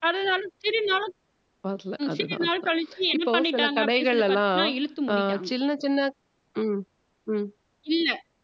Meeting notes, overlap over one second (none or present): present